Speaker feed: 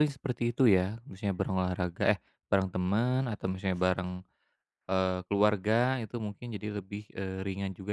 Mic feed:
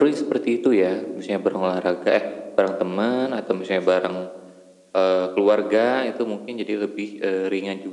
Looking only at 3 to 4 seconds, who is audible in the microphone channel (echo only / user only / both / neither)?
echo only